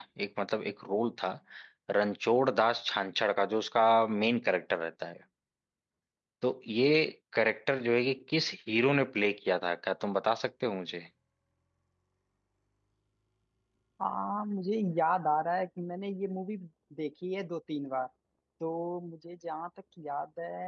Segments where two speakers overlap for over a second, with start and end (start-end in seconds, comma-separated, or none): none